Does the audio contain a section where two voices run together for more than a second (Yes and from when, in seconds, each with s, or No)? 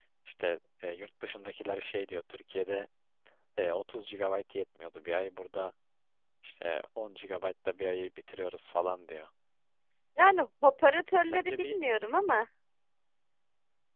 No